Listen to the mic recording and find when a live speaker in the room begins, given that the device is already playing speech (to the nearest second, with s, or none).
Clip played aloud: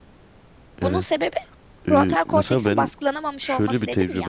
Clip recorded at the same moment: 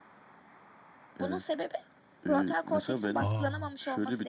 3 s